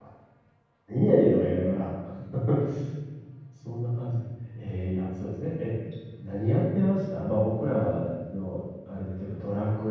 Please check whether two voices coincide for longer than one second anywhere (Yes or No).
No